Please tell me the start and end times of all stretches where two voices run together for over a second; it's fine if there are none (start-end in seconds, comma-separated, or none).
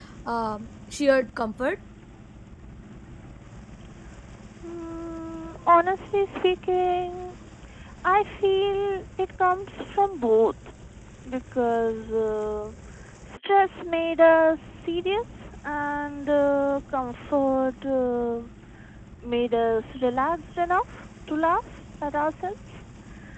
none